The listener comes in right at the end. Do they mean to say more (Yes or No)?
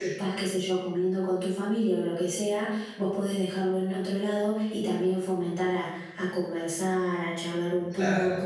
No